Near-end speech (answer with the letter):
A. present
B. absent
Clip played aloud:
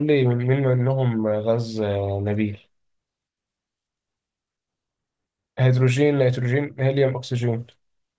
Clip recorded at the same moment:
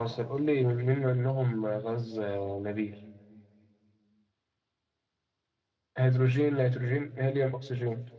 B